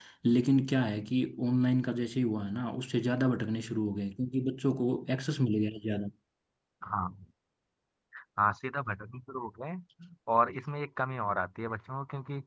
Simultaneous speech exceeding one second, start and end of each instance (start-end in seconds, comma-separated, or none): none